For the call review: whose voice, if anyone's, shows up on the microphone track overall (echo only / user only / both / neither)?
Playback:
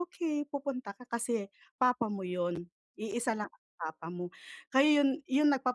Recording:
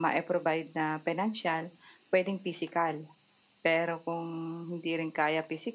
user only